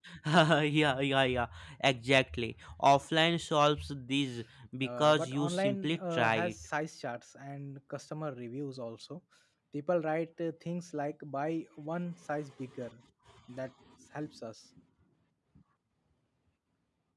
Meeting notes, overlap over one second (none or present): present